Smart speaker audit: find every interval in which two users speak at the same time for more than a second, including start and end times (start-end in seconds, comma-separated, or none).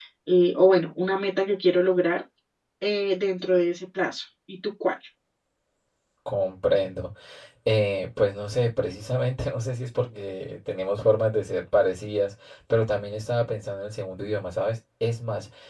none